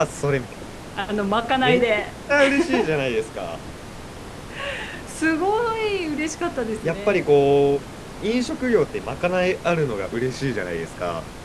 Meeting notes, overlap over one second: none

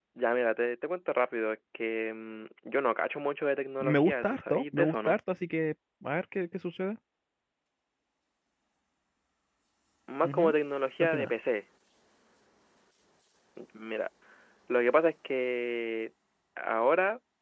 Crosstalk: present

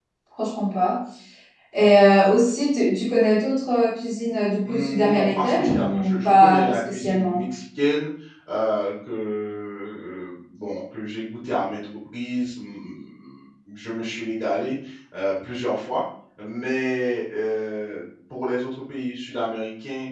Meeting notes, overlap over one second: present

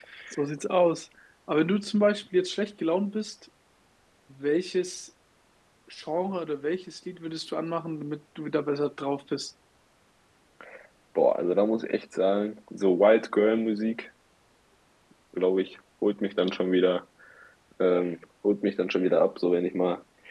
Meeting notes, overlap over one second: none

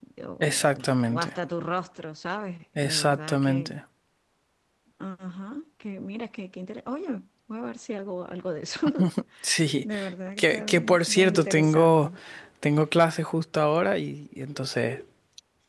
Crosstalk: present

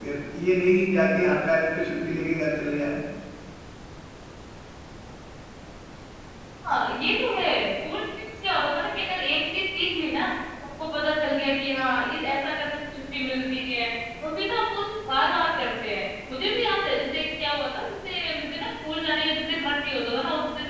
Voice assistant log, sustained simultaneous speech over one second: none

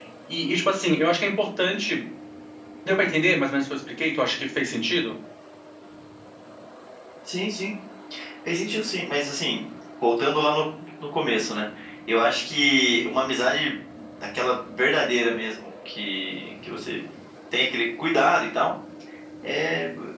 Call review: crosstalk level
none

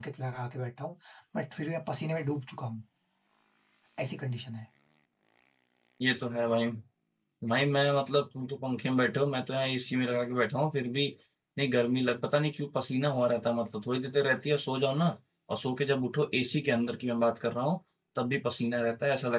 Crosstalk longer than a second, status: none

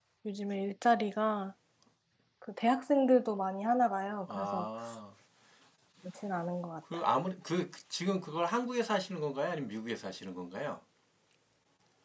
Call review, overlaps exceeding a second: none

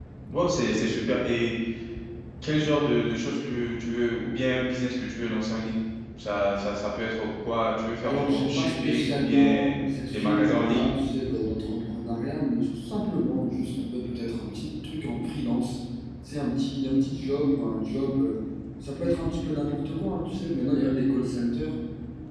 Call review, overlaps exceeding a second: present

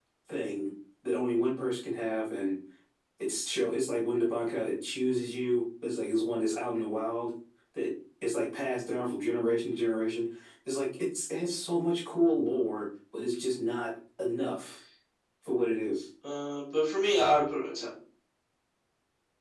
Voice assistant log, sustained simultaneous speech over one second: none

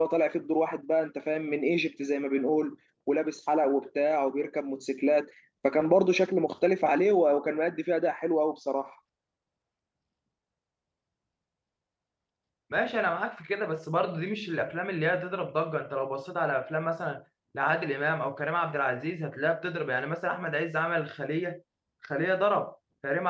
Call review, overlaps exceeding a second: none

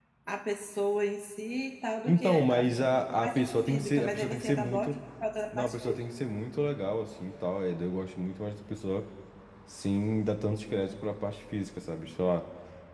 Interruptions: present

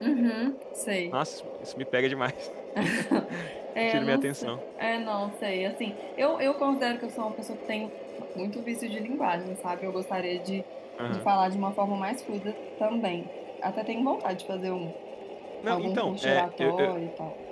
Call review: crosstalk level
present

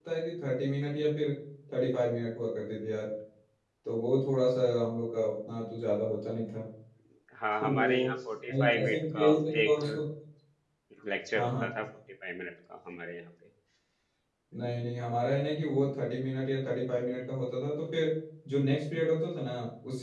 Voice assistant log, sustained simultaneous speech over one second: present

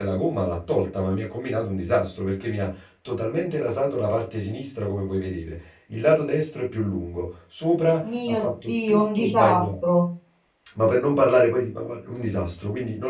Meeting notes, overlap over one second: present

